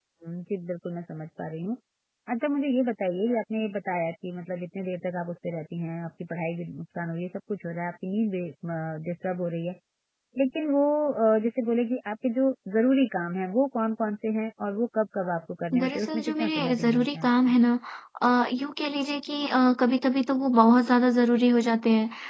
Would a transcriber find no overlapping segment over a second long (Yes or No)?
No